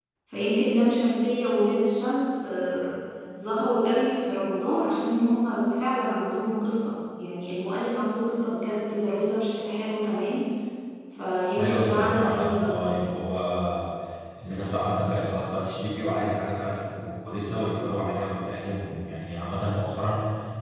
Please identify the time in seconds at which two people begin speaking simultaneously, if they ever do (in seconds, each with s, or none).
11.6 s